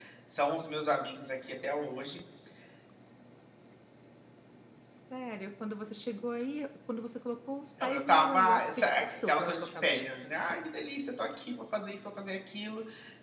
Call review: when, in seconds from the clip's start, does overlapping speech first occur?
7.8 s

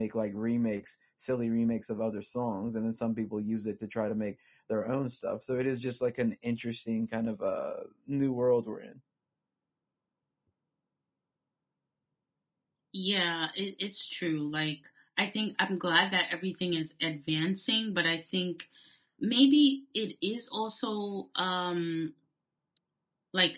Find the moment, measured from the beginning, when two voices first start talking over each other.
none

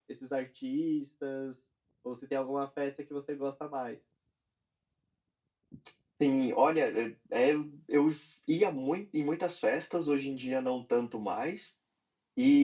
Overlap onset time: none

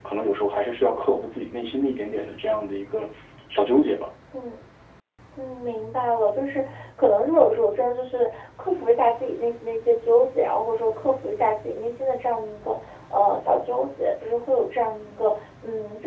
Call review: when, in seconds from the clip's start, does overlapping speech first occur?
none

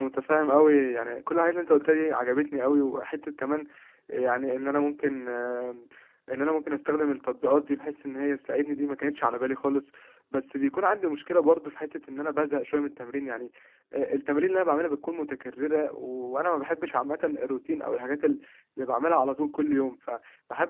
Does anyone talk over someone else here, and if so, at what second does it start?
none

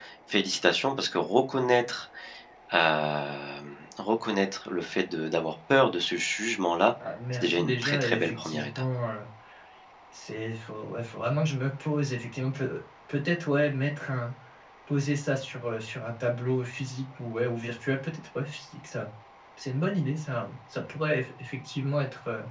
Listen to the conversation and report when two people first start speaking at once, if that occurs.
7.3 s

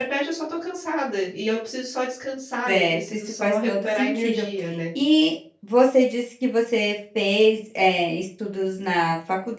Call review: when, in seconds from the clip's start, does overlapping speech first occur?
2.7 s

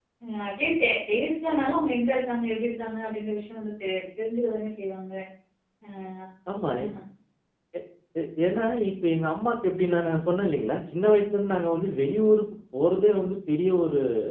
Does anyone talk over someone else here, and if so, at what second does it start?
none

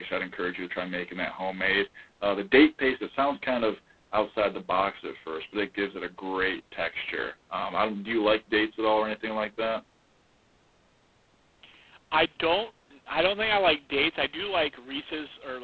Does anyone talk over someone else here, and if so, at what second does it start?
none

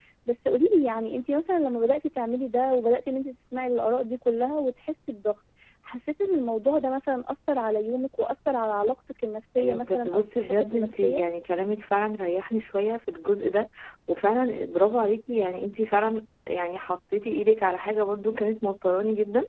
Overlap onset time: 9.6 s

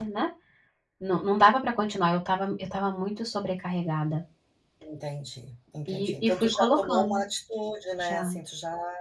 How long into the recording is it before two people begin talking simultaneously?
5.9 s

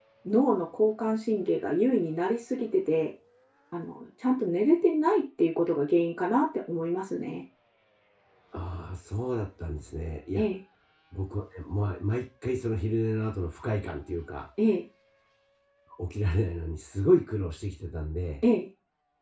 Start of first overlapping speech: none

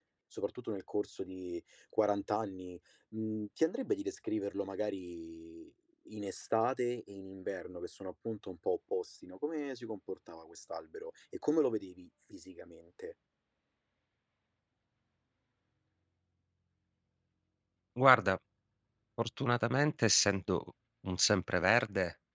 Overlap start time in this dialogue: none

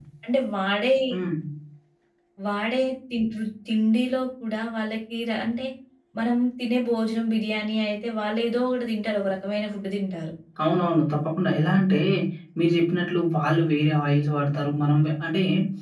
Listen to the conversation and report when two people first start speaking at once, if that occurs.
none

